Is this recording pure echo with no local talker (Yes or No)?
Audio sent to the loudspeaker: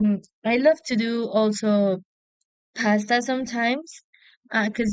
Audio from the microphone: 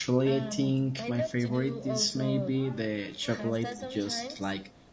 No